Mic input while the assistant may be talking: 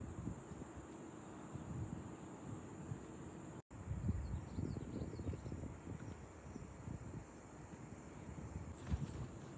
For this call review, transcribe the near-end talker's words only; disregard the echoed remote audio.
none

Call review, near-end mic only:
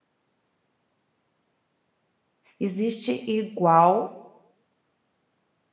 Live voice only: Existe igual

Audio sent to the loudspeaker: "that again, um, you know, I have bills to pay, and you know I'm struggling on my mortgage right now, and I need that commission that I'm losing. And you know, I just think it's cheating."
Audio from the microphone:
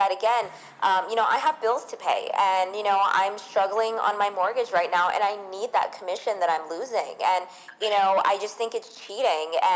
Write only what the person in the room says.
none

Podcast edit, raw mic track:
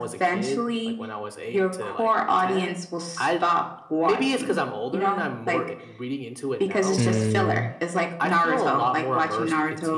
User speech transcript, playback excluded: Mm.

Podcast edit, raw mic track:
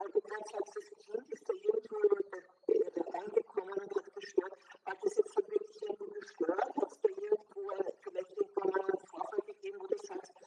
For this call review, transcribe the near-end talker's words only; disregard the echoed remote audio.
none

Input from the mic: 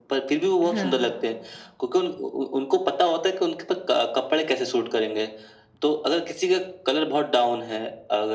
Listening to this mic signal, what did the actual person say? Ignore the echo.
हाँ।

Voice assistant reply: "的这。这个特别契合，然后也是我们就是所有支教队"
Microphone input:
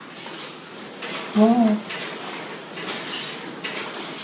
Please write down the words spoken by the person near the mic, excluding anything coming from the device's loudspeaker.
哦，

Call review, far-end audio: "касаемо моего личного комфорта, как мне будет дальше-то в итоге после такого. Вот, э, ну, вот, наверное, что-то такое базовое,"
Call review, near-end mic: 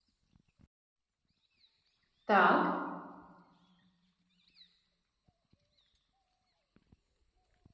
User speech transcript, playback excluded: так,

